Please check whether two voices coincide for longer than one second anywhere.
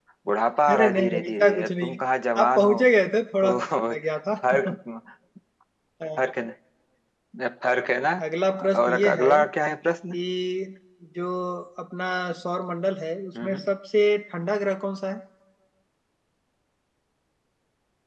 Yes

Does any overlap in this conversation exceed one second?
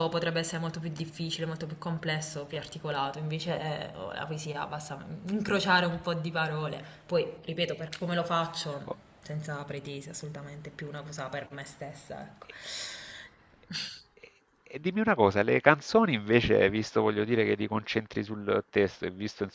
No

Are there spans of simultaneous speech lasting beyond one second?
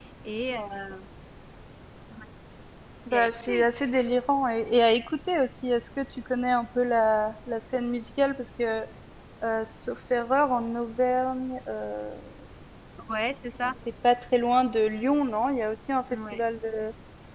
No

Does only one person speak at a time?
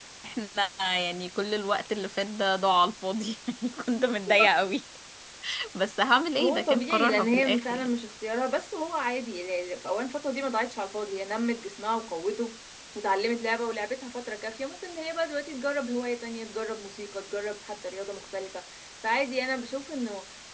No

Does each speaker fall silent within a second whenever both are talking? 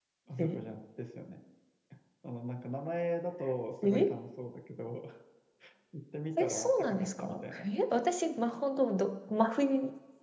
No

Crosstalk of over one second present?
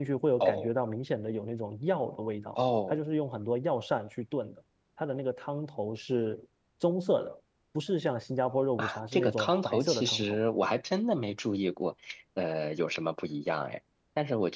Yes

